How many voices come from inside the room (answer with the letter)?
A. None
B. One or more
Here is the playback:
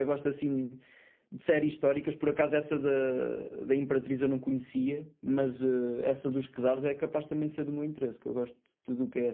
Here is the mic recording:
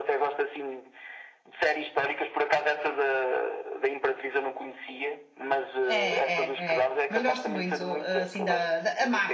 B